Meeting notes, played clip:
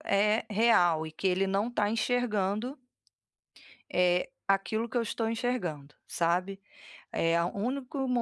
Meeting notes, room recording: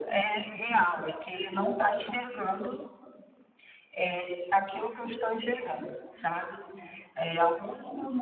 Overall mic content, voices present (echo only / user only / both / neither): echo only